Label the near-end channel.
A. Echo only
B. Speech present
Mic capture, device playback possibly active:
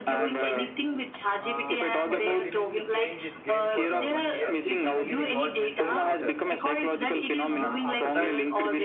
B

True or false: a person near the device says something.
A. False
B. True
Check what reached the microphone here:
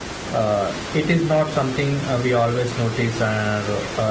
B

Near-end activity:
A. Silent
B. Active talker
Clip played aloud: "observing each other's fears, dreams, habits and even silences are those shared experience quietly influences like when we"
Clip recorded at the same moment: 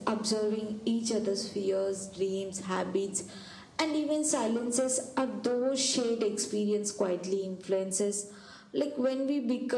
A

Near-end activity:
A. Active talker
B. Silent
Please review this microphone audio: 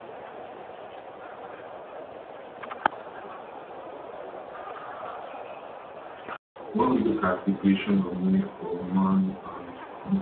A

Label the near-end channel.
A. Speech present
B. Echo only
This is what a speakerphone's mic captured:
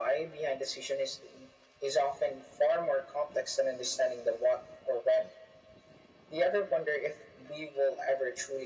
B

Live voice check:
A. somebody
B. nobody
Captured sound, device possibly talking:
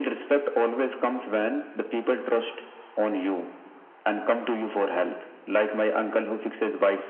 B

